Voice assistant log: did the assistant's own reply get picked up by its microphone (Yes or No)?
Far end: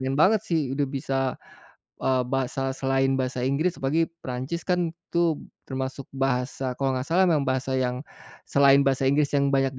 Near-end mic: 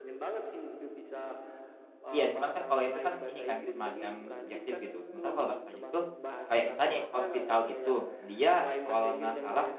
Yes